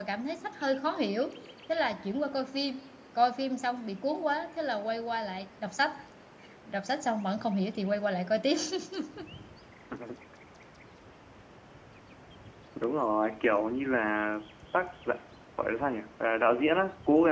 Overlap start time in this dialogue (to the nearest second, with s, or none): none